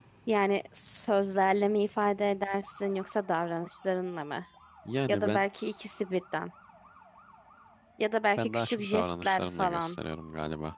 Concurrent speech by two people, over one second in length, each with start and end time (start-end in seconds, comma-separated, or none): 8.4-10.0